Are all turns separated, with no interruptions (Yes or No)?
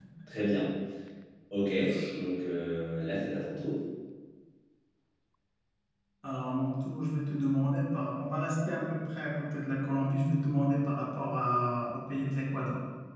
Yes